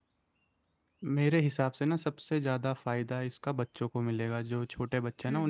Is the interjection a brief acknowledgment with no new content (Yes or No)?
Yes